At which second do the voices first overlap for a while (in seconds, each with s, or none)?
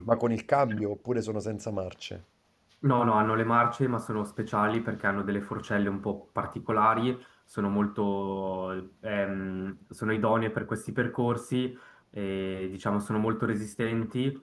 none